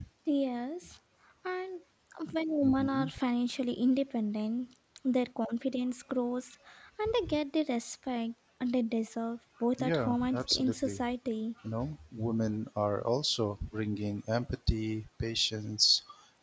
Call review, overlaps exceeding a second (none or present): present